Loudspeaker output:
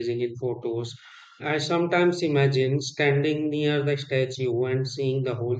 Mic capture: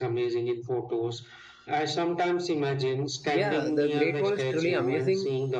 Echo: present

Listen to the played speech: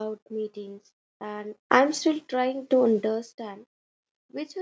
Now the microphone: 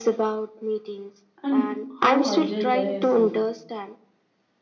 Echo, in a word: present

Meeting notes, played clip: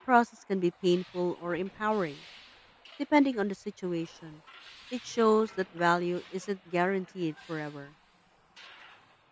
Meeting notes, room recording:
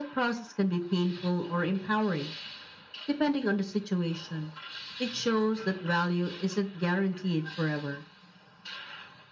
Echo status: present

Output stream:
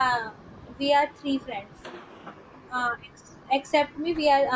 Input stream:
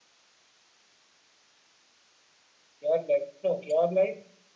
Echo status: none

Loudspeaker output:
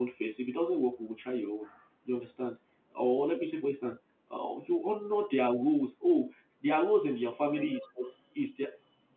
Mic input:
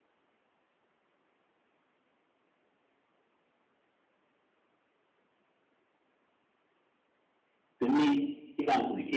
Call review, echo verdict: none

